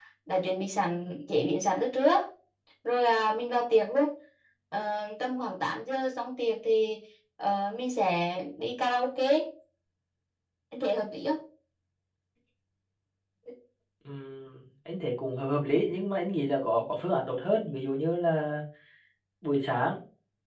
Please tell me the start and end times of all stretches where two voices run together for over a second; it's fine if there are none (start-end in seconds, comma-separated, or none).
none